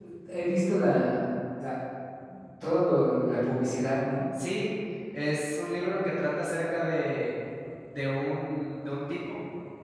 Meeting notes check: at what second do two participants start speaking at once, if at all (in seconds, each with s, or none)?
none